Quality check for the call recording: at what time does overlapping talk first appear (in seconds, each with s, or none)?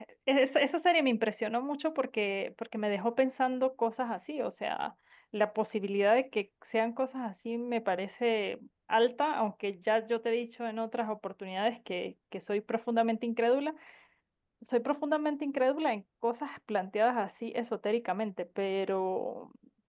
none